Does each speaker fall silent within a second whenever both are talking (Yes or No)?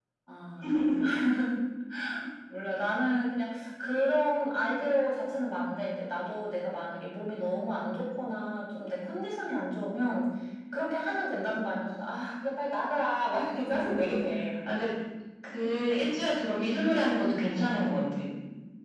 Yes